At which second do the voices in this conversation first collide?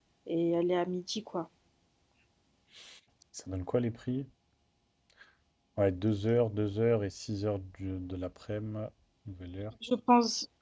none

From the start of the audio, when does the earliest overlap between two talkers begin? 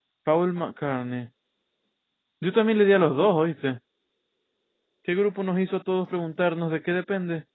none

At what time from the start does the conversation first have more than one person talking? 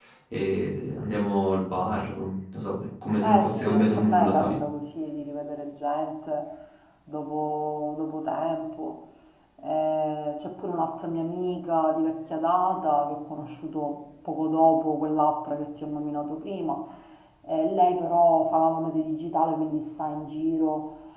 3.1 s

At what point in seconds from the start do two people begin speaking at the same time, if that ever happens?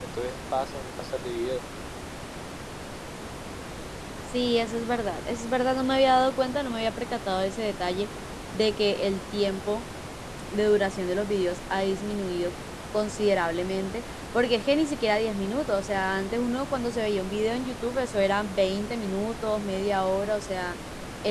none

